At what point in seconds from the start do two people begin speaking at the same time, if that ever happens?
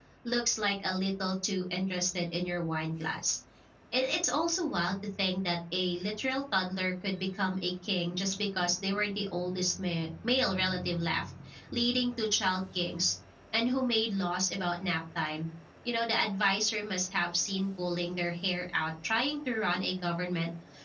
none

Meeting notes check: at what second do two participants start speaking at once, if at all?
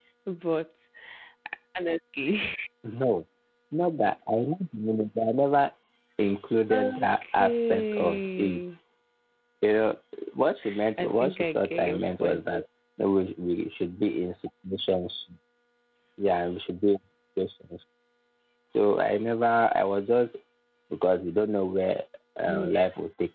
6.7 s

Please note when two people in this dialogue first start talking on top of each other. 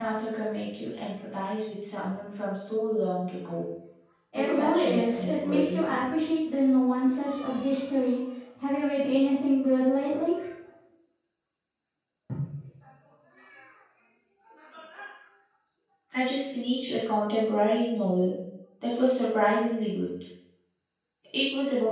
4.4 s

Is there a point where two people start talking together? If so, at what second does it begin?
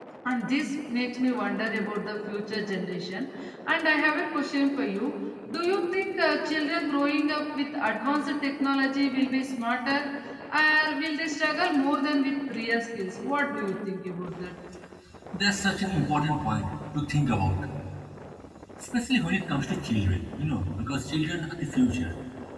none

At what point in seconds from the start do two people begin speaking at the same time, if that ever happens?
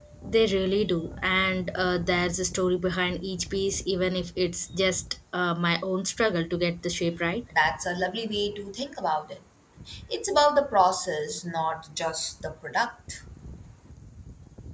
none

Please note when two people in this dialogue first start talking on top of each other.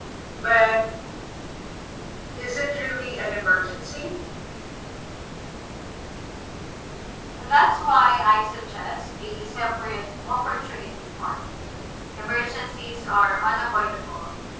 none

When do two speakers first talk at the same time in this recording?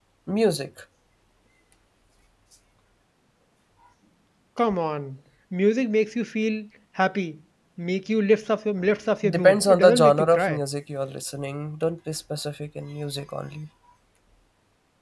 9.2 s

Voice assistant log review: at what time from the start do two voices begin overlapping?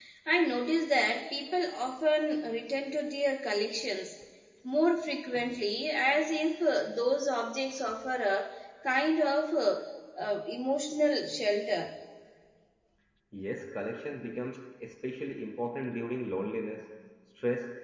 none

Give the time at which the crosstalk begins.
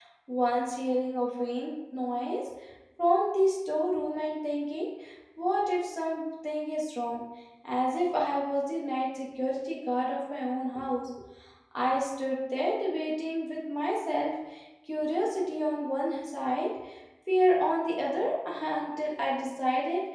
none

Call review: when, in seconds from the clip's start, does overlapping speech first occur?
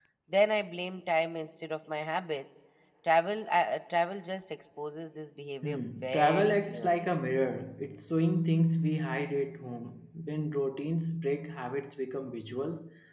5.6 s

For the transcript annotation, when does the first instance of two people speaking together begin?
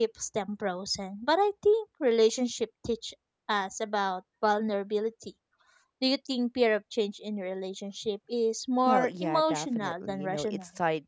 8.8 s

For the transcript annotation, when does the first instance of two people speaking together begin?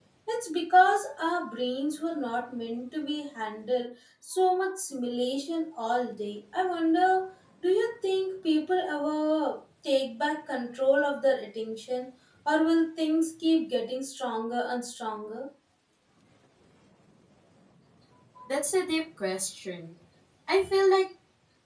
none

